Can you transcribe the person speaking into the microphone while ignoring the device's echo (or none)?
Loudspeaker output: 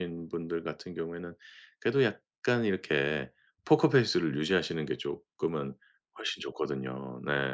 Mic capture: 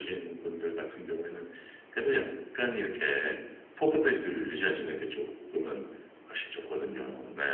none